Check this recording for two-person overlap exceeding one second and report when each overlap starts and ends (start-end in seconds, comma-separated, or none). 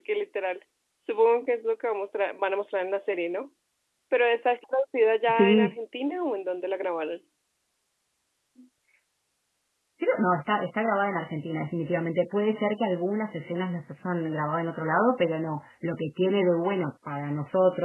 none